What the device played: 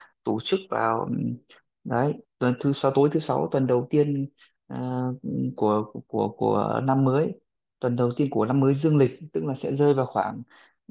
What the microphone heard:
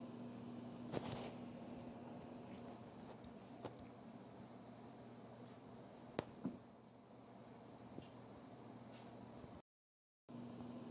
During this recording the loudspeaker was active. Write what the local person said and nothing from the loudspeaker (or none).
none